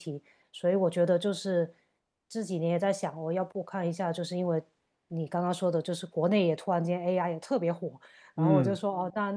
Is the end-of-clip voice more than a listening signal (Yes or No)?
No